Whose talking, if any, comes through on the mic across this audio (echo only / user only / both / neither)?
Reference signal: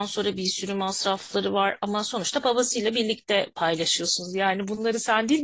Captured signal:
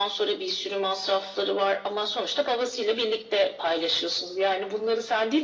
echo only